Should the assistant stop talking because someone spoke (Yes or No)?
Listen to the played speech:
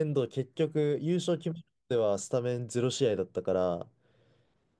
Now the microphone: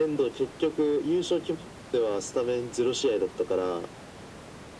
No